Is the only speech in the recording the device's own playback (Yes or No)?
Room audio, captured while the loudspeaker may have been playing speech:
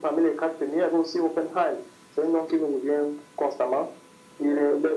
Yes